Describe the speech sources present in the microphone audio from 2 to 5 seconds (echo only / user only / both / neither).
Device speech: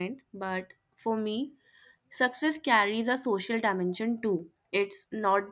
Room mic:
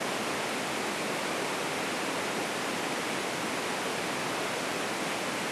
neither